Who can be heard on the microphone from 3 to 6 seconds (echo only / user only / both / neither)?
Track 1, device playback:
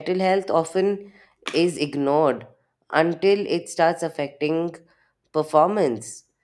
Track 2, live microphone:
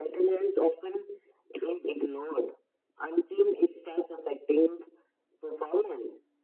echo only